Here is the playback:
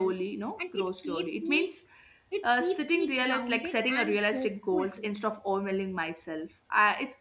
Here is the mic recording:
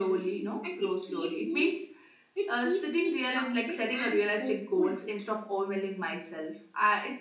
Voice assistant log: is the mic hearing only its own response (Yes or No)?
Yes